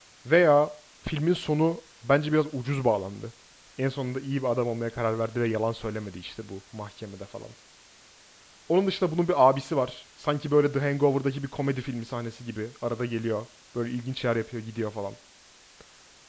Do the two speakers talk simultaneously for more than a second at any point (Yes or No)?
No